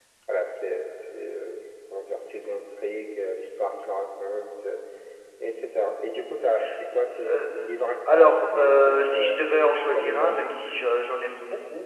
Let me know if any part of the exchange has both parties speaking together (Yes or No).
Yes